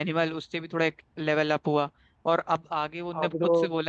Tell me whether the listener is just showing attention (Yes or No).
Yes